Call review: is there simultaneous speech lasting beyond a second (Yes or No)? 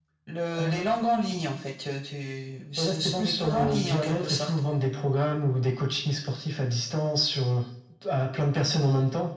Yes